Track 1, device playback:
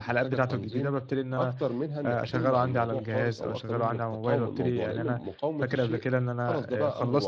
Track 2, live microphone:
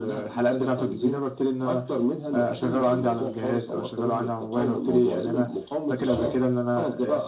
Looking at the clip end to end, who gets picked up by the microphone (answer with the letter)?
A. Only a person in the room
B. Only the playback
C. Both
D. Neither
C